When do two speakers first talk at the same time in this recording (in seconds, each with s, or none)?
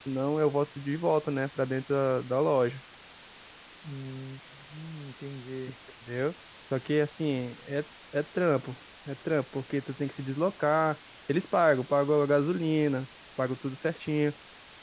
none